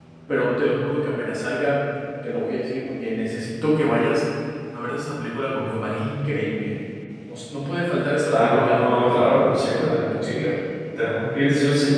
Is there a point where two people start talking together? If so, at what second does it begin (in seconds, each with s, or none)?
8.2 s